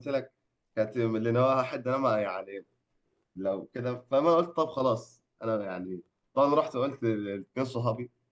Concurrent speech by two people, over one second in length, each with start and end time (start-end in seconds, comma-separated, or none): none